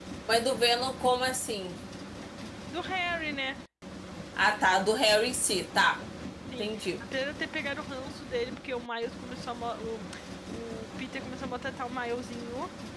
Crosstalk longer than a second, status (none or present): none